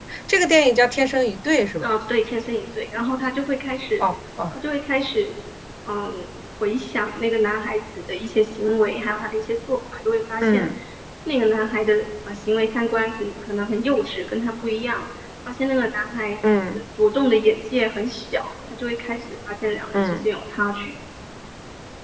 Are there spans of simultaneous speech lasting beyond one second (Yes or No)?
No